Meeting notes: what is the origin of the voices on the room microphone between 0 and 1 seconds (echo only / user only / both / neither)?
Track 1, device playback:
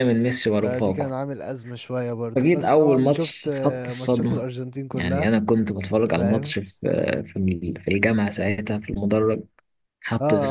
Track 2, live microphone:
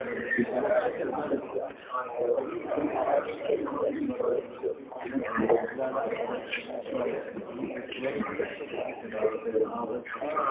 both